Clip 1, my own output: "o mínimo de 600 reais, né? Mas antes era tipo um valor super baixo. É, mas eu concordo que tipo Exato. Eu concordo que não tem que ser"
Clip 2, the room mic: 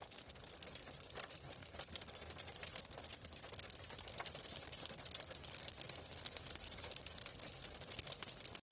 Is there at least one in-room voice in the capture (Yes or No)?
No